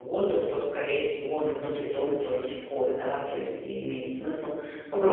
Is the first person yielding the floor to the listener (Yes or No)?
No